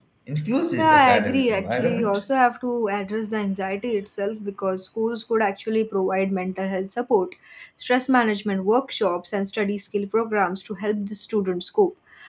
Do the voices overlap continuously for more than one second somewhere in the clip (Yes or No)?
Yes